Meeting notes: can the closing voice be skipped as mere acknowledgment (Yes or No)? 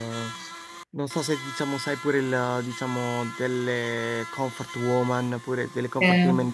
Yes